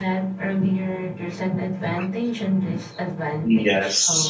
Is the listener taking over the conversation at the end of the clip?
Yes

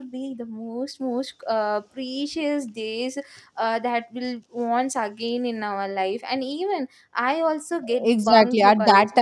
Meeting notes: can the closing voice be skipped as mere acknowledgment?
No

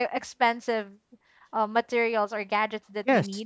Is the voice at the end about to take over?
No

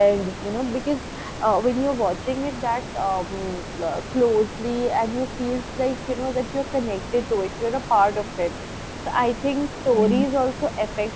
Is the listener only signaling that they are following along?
Yes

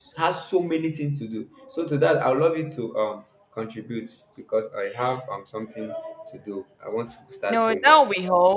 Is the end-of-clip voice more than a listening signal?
Yes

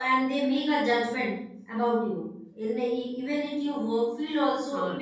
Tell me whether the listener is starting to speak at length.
Yes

